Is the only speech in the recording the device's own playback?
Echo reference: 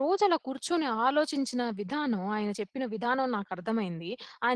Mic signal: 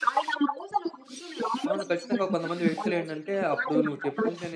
No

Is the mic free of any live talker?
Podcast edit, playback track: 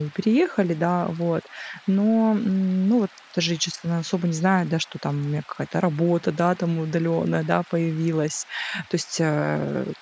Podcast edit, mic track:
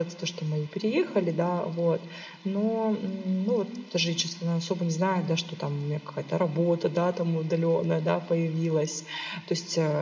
Yes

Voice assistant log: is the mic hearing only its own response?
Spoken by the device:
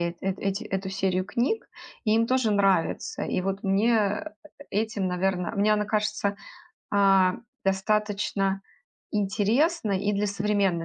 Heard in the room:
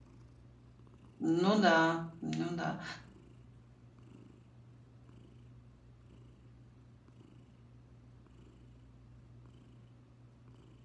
No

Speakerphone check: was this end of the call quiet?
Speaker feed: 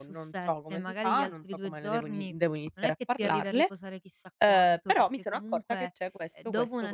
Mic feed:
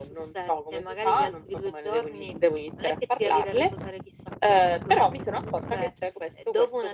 Yes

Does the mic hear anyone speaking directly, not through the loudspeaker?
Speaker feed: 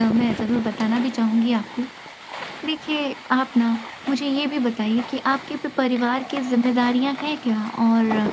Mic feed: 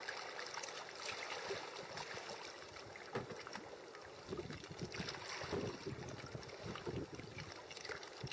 No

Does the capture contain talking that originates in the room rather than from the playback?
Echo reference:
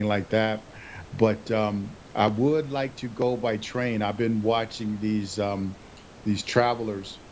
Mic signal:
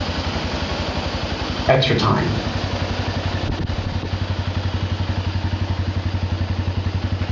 Yes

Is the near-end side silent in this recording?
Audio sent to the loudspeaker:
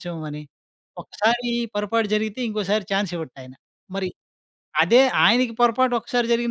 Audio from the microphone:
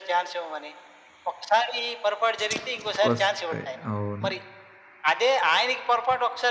No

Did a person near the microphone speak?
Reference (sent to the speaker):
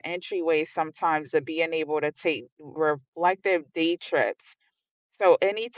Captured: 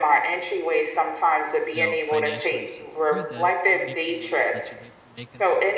Yes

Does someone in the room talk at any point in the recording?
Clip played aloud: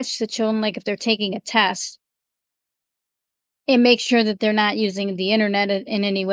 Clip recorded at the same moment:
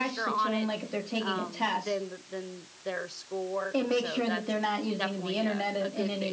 Yes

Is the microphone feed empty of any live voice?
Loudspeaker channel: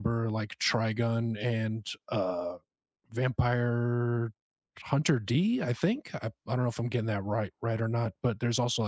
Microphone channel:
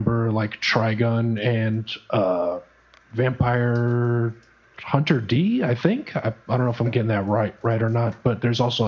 Yes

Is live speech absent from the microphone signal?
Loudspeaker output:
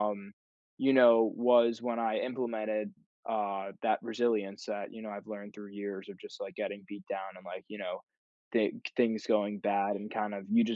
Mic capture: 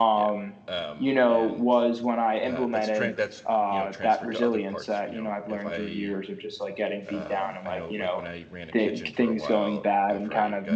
No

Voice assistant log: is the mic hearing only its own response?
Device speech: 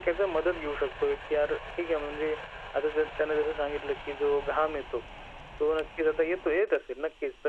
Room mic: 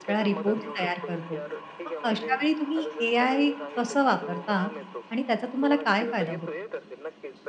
No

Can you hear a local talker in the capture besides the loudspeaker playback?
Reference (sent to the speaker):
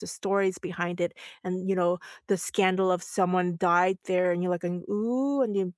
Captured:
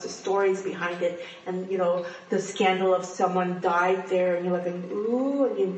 No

